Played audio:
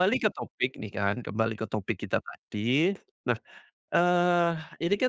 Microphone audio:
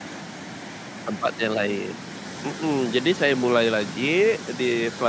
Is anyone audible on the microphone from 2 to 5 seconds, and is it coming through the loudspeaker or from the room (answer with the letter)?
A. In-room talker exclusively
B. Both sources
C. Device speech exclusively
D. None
A